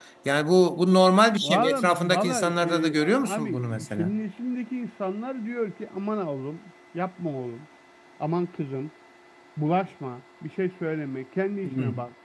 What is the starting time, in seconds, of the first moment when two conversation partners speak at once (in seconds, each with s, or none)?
1.4 s